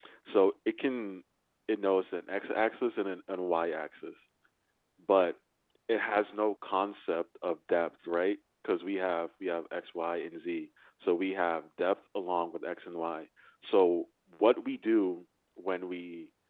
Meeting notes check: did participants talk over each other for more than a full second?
No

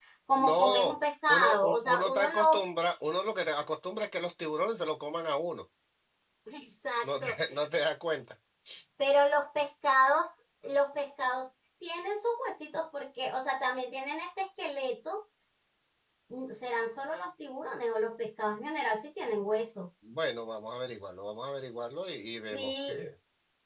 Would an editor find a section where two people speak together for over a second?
Yes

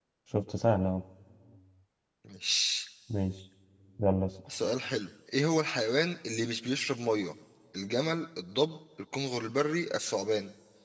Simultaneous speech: No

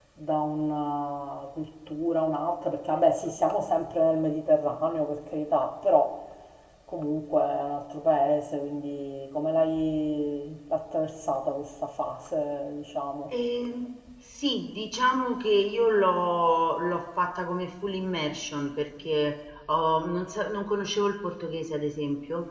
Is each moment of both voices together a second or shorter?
Yes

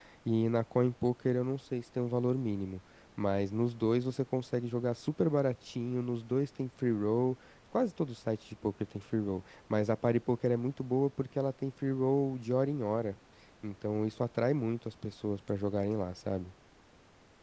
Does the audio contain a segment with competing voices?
No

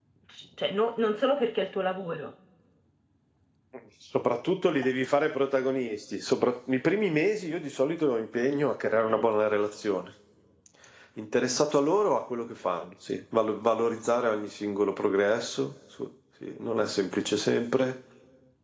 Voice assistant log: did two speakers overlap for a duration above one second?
No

